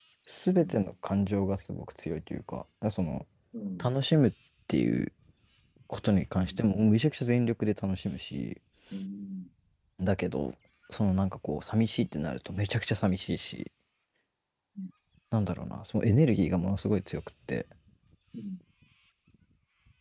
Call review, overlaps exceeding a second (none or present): none